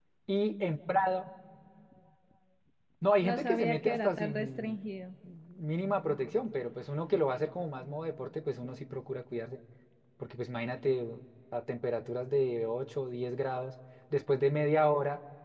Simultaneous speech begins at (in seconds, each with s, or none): 3.2 s